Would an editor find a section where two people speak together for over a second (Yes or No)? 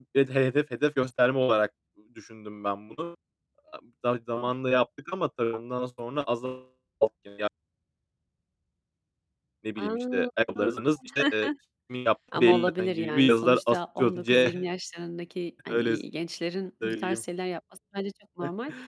Yes